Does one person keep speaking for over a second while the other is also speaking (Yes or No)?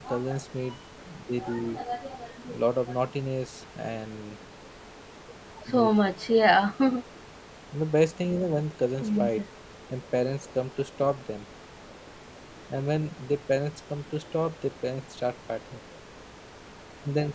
No